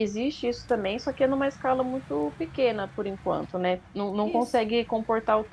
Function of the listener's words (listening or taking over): listening